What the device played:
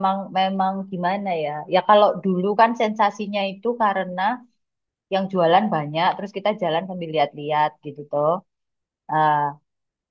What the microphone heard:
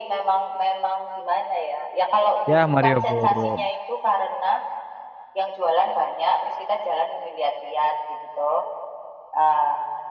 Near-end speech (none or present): present